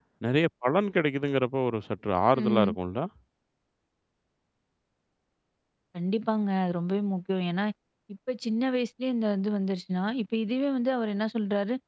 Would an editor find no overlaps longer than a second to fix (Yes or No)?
Yes